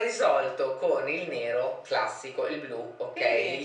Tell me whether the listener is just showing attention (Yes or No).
Yes